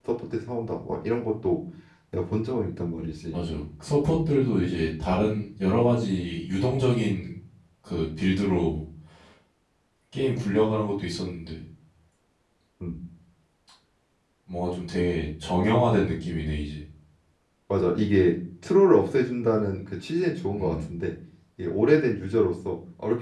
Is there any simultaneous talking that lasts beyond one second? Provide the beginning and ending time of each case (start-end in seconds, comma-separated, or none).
none